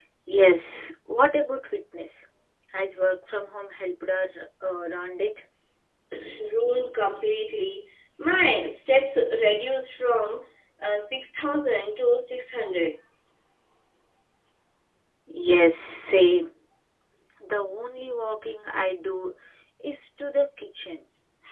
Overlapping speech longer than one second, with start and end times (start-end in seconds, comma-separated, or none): none